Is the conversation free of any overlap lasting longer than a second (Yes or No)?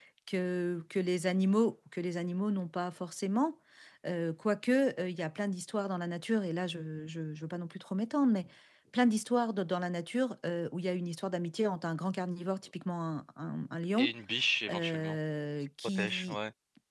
Yes